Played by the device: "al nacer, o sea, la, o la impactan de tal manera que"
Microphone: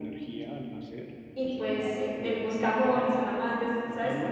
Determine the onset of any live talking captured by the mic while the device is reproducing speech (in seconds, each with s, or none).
1.3 s